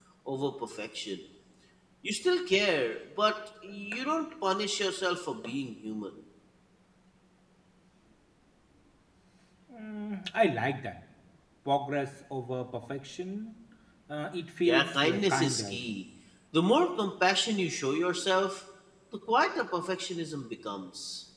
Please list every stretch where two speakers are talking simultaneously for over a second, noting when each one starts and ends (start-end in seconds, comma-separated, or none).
14.6-16.0